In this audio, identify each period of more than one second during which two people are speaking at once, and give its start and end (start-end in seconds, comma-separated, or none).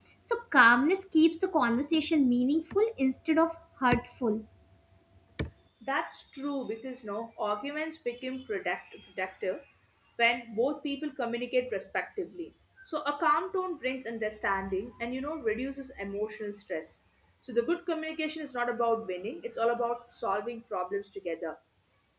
none